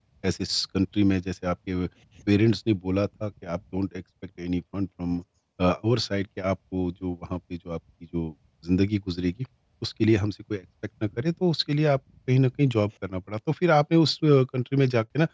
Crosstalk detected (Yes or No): No